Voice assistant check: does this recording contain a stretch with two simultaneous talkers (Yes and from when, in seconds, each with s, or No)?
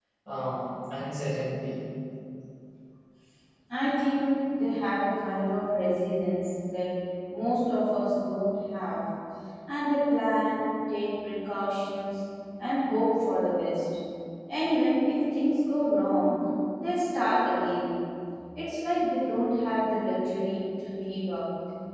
No